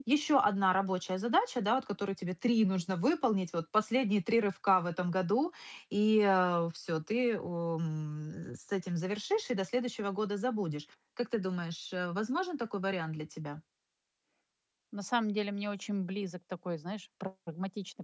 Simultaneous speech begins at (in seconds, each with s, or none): none